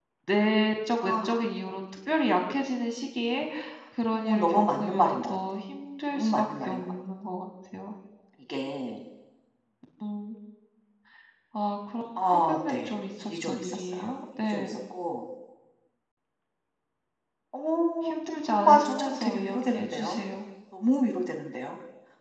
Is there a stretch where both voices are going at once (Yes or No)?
Yes